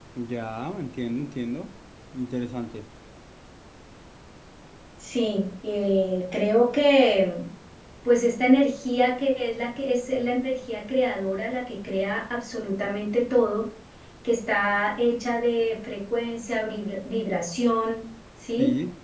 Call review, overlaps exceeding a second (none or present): none